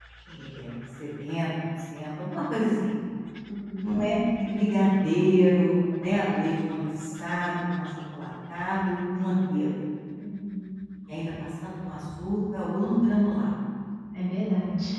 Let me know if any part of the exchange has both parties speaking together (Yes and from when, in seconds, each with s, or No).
No